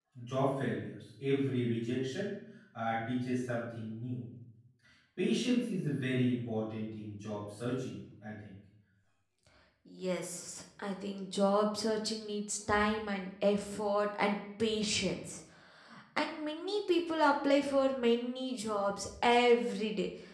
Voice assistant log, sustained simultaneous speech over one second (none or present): none